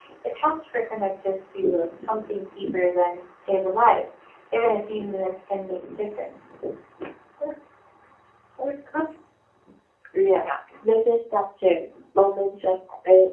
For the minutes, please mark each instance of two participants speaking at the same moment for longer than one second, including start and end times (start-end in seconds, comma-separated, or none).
none